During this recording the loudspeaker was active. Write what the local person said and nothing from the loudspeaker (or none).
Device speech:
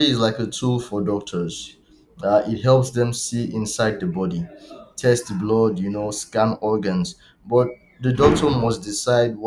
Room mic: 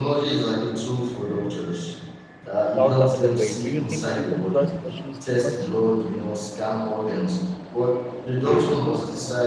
not the other way. Do you think people trust machines too much?